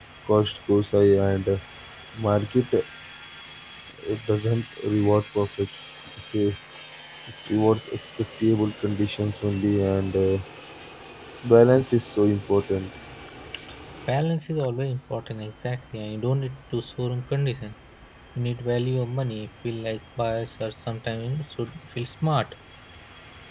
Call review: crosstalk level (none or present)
none